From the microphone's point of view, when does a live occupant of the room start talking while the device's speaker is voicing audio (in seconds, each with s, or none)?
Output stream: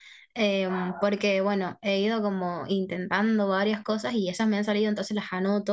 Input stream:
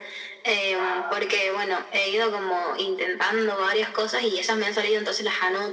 none